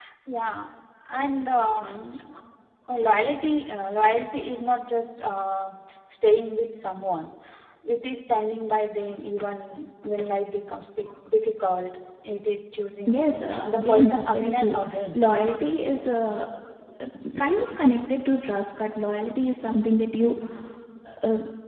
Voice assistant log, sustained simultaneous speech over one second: present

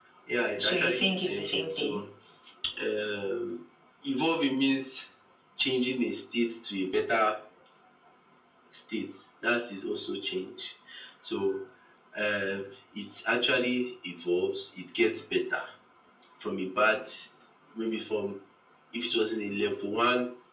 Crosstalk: present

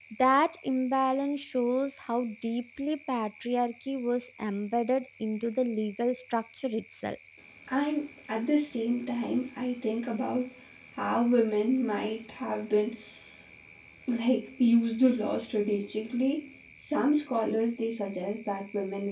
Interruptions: none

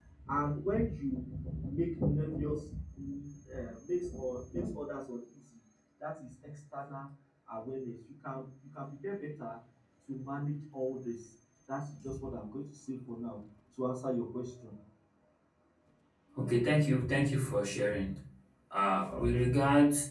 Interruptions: none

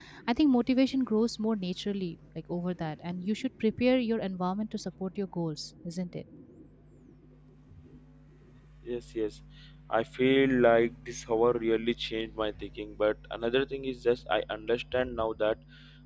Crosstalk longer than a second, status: none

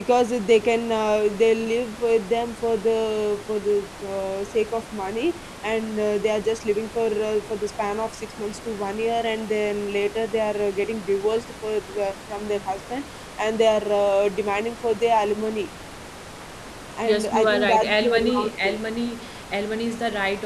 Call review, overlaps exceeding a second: present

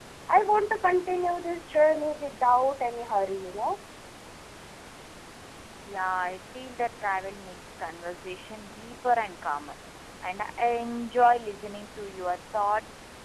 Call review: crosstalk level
none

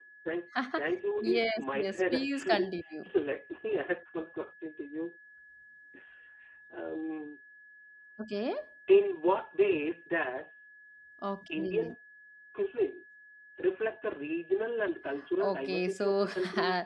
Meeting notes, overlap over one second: present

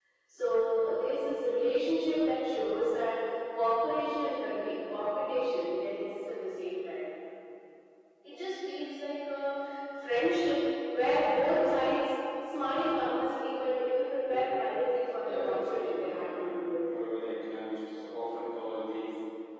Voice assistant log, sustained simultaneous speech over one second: present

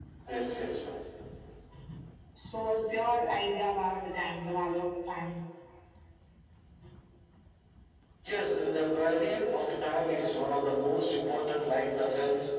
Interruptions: none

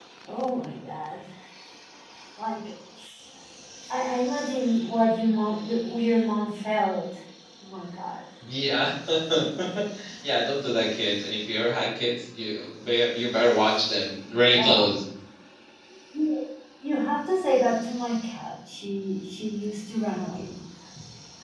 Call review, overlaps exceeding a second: none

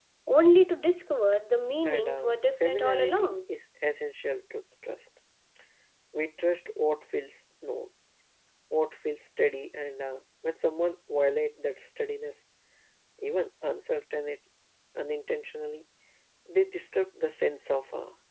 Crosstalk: present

